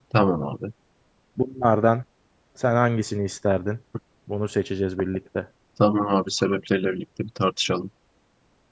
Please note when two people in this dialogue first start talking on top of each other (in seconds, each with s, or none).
none